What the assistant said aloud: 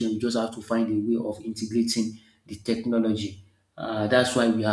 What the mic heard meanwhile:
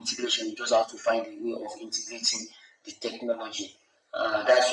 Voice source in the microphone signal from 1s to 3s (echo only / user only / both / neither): echo only